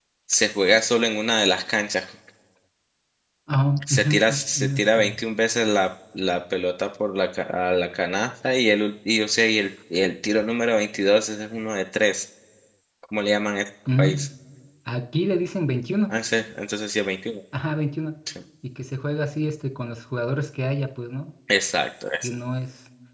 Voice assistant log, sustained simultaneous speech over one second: present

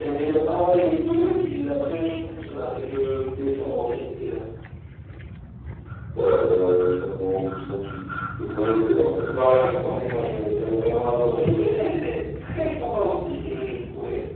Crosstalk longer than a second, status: none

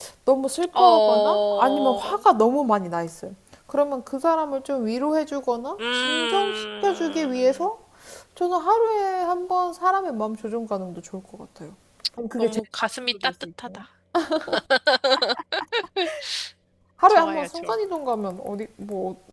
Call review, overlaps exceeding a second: present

